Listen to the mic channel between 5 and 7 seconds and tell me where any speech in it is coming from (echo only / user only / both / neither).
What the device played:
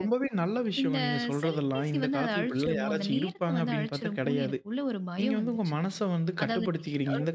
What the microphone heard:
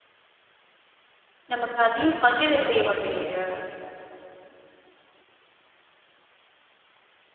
neither